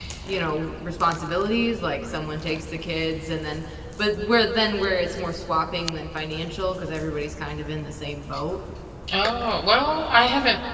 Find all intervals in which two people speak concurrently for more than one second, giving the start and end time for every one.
none

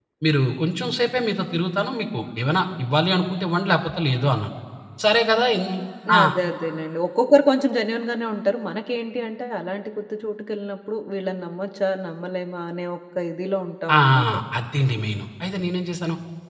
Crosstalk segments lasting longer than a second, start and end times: none

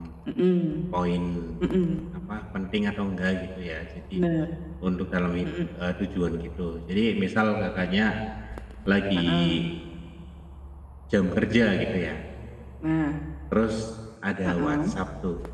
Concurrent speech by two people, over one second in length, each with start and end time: none

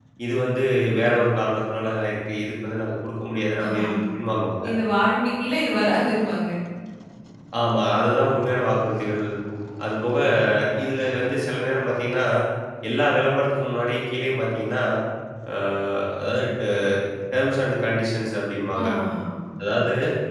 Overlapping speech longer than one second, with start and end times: none

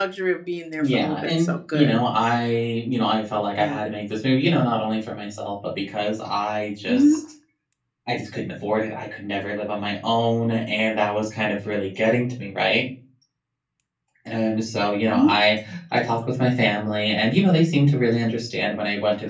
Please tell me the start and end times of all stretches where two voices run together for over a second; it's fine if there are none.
0.8-2.0

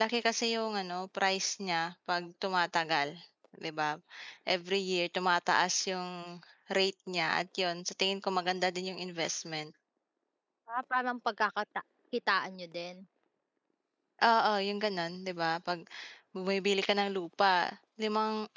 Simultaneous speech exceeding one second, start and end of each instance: none

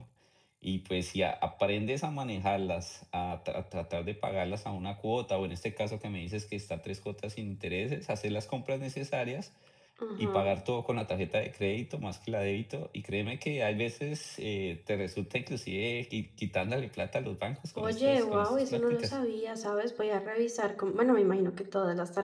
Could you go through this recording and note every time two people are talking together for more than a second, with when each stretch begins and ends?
17.8-19.1

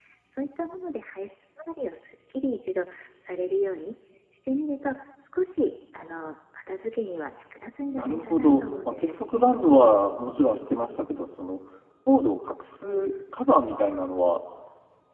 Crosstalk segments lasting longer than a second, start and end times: 8.0-9.4

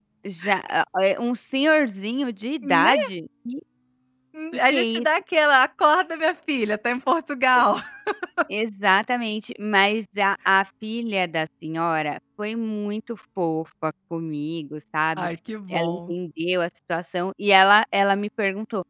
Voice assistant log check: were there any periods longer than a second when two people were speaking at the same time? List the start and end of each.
none

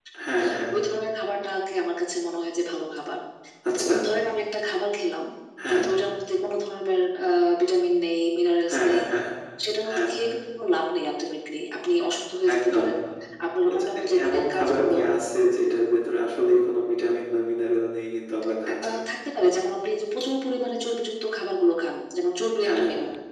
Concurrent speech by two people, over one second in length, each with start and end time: 13.7-15.0

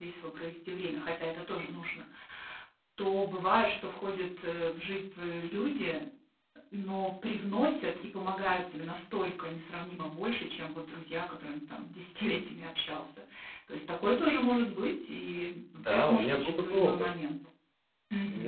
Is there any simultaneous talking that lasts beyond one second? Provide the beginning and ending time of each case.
15.9-17.1

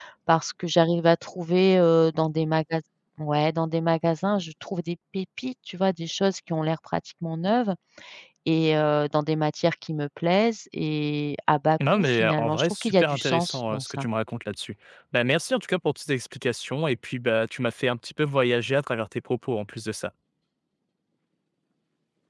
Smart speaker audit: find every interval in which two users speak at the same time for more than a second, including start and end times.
12.0-14.0

